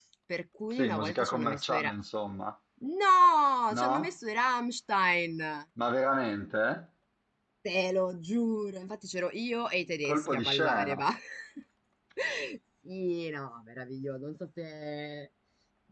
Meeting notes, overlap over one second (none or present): present